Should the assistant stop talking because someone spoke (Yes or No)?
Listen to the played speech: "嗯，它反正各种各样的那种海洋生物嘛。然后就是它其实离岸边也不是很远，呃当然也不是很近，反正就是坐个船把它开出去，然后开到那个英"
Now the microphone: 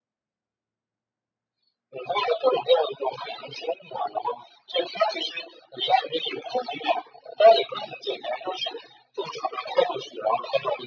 No